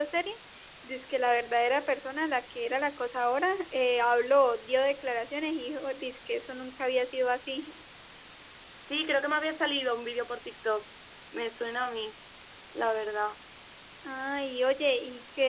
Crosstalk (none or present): none